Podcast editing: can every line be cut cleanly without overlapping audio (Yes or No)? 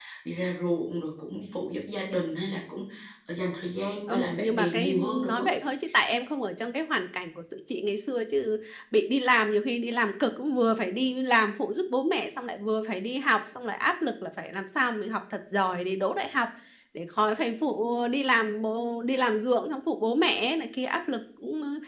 No